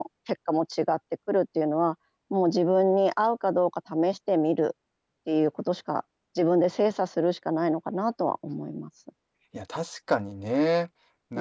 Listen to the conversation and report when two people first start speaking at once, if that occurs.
none

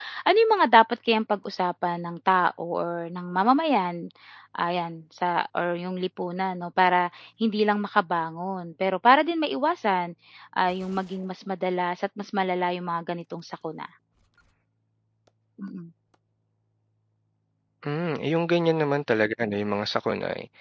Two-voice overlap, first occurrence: none

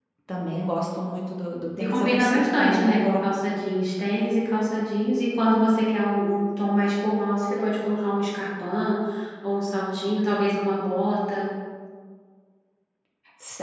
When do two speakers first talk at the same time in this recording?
1.8 s

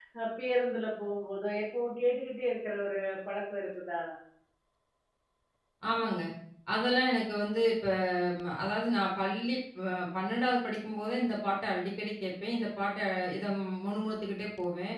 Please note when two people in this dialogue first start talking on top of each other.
none

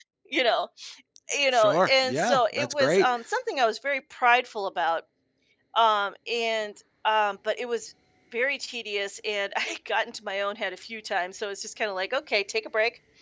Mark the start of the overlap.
1.5 s

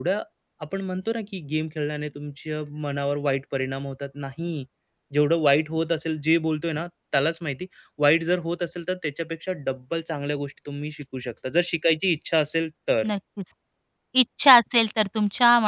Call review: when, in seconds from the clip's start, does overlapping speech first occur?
none

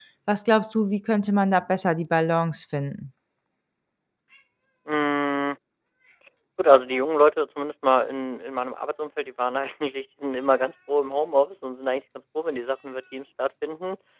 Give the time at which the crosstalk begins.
none

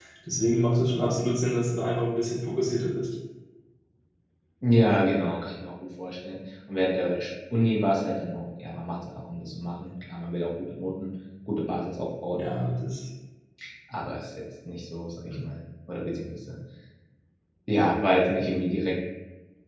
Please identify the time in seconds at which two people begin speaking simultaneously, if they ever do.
none

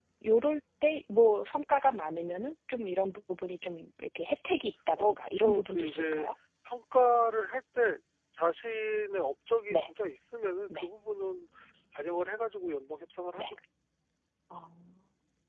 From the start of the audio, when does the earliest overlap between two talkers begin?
5.0 s

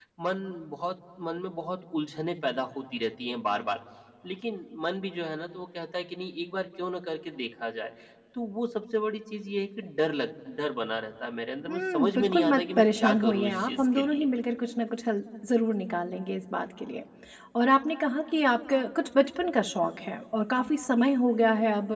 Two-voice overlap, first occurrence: 11.7 s

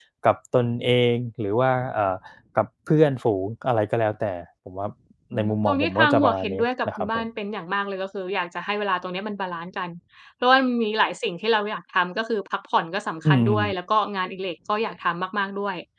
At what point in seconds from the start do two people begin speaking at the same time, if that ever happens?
5.3 s

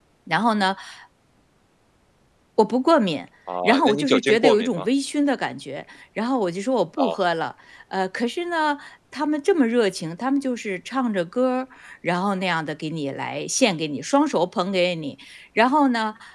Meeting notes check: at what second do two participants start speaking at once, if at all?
3.5 s

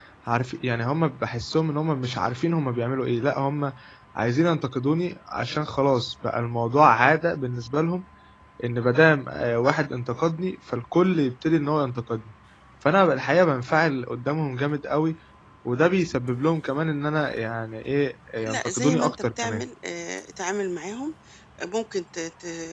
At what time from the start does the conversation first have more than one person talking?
18.4 s

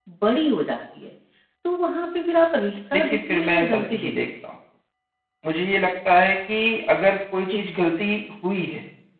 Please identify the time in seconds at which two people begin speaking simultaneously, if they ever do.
2.9 s

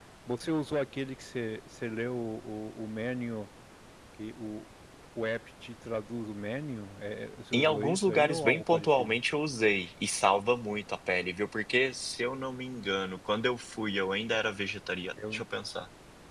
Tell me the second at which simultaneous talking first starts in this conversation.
7.5 s

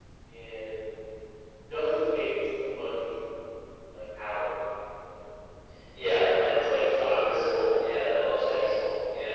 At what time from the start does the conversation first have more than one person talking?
6.0 s

